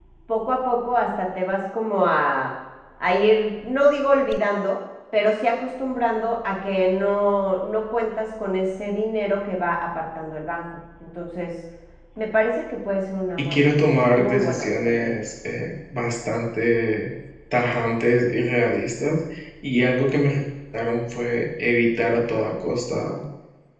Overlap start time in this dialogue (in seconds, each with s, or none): 13.4 s